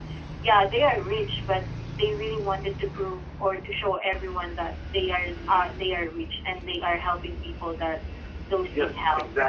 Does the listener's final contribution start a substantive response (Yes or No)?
Yes